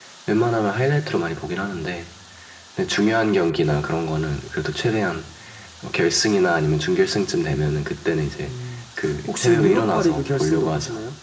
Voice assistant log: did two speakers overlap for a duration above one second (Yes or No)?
Yes